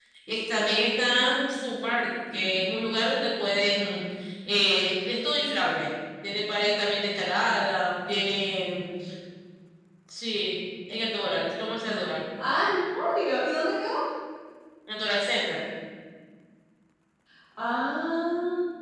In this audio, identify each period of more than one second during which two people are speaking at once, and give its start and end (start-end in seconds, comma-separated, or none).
none